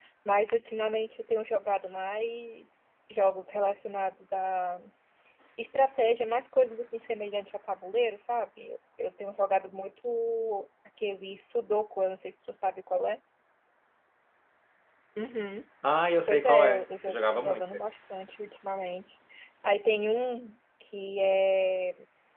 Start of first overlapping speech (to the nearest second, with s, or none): 16 s